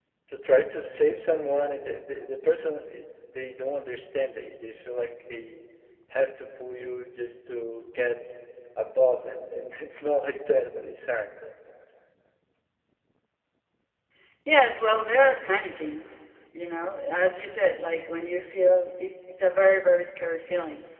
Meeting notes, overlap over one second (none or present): none